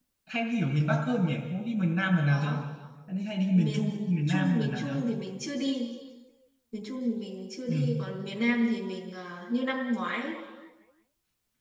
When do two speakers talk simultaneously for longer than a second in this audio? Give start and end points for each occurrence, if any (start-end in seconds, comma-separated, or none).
3.5-5.0